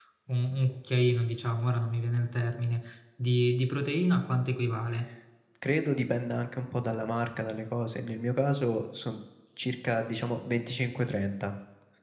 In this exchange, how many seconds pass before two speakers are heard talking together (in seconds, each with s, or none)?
none